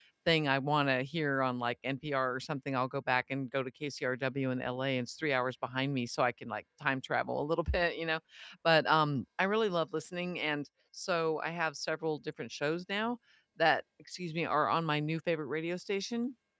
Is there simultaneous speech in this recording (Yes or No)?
No